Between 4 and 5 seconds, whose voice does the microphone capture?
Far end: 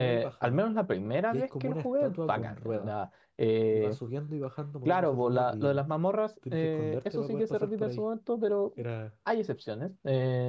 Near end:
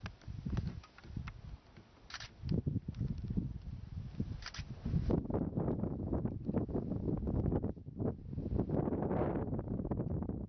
neither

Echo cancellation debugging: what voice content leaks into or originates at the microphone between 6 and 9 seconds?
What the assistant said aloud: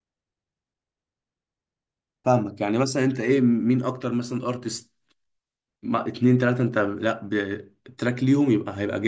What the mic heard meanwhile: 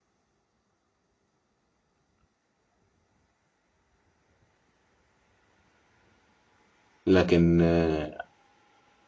user only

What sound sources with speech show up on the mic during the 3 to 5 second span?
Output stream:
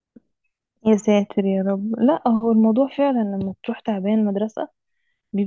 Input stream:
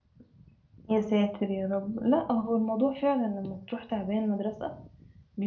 echo only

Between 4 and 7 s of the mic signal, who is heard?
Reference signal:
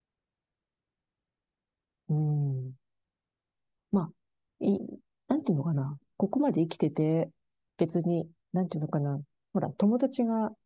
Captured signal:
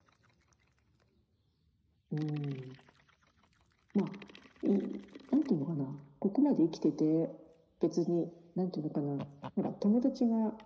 echo only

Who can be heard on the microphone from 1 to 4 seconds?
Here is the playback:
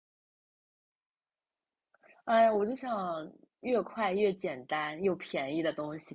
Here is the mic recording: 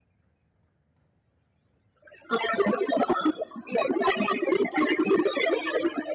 echo only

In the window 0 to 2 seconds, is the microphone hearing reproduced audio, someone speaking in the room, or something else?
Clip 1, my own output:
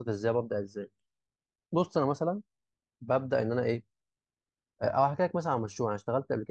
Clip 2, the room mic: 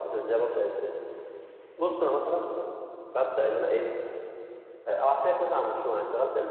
echo only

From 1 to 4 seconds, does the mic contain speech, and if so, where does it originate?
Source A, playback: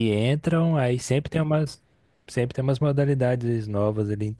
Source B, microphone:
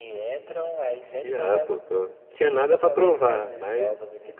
both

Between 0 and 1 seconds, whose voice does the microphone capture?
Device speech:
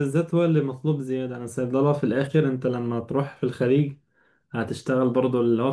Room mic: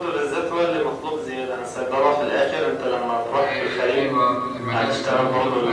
echo only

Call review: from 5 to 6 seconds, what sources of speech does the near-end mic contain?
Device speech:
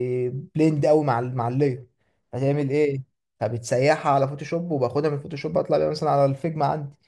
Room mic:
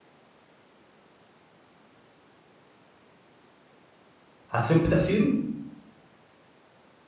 user only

